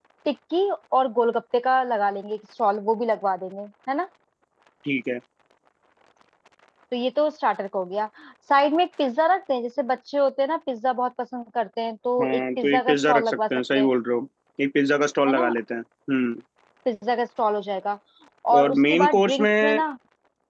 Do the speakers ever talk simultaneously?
Yes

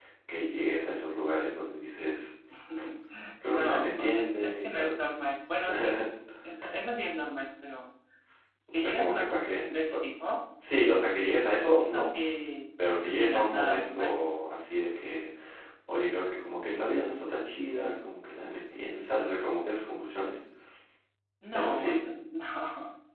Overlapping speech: Yes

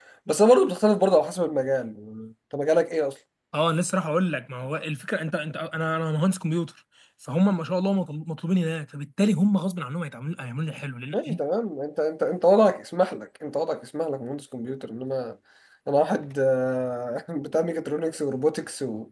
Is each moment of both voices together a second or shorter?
Yes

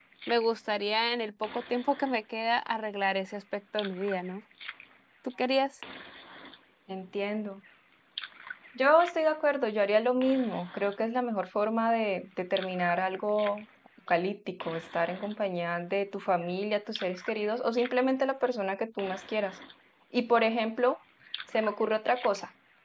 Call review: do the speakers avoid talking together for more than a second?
Yes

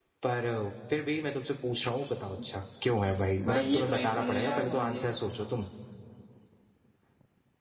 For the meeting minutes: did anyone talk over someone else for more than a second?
Yes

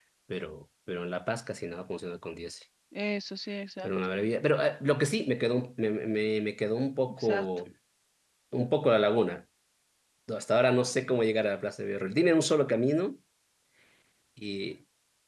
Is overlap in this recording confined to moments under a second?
Yes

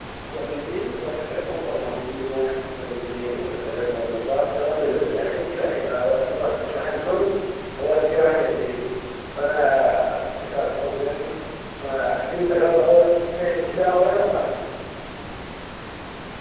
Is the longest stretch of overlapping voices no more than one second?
Yes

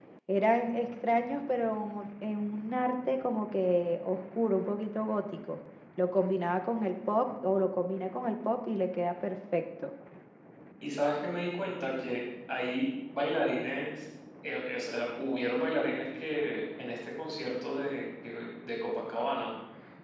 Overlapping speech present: No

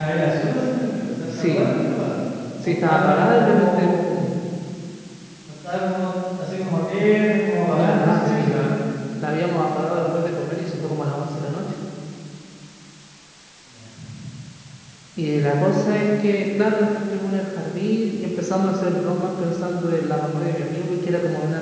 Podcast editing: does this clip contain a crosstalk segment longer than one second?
Yes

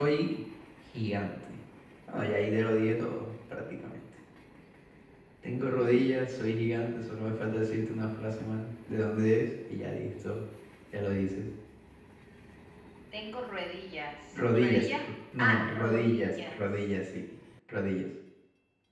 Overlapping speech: Yes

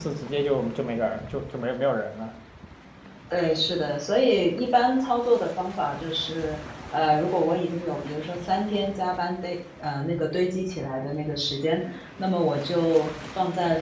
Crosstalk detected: No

